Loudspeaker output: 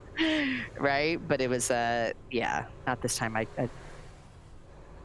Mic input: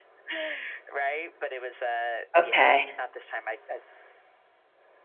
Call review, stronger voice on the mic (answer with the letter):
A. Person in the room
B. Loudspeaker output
A